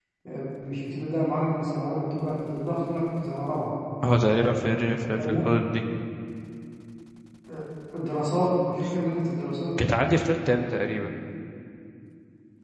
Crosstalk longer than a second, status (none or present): none